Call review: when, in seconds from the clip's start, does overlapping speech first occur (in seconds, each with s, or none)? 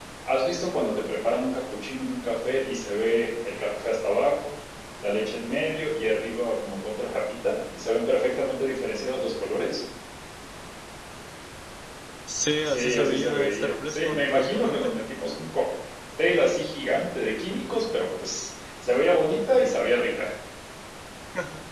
12.7 s